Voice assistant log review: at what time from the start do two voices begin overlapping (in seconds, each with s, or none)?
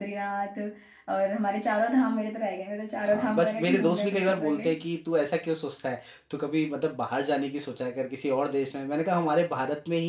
3.0 s